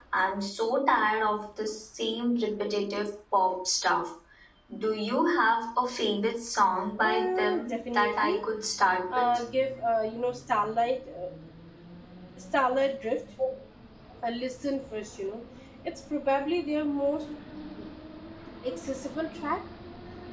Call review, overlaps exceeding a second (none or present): present